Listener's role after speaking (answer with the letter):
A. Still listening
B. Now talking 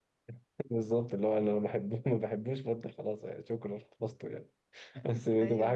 A